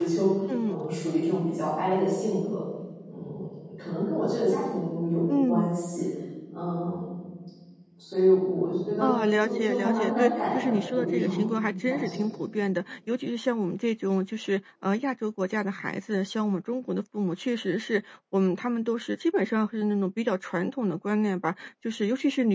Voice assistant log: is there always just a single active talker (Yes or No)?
No